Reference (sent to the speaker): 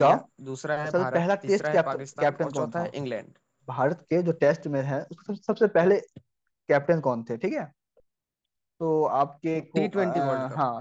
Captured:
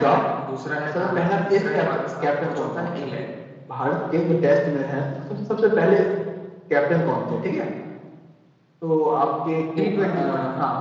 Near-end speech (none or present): none